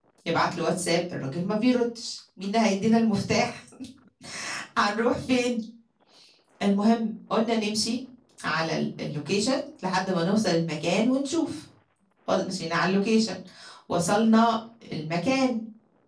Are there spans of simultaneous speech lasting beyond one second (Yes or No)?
No